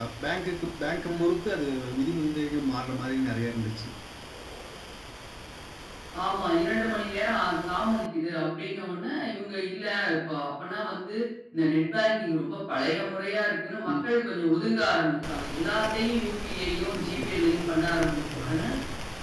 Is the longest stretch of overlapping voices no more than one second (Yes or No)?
Yes